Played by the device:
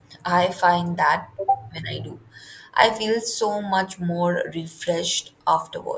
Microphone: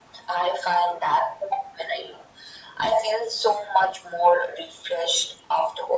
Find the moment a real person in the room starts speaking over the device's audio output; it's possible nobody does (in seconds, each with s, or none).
none